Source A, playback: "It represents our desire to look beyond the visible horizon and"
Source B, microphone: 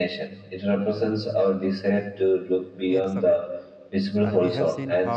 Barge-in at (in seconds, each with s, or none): 2.9 s